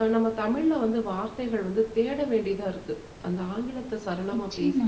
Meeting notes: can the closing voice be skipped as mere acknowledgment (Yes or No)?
No